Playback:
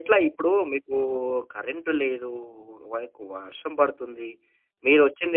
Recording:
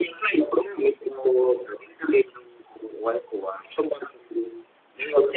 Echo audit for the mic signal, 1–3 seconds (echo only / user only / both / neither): echo only